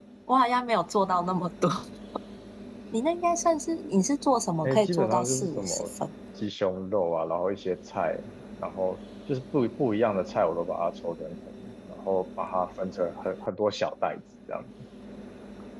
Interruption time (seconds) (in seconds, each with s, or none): 4.6 s